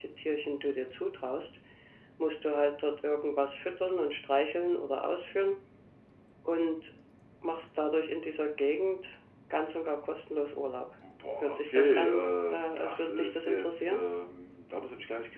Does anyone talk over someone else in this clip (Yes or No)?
Yes